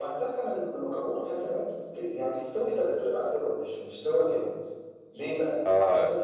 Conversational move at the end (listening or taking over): listening